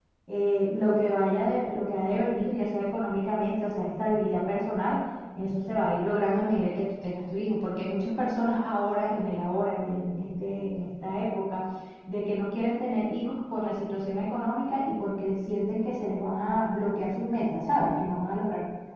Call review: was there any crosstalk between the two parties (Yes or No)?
No